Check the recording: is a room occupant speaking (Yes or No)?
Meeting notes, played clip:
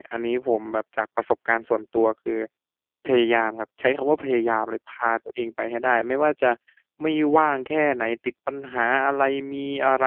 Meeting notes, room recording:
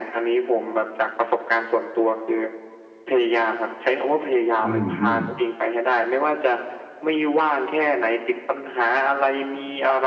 Yes